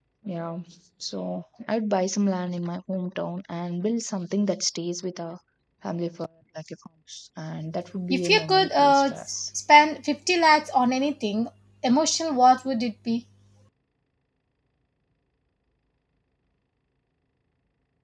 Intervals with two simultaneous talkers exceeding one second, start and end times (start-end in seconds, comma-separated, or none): 8.1-9.4